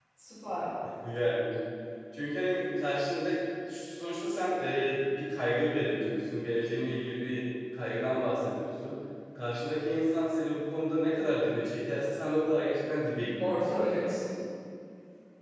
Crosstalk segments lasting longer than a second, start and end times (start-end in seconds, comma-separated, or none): none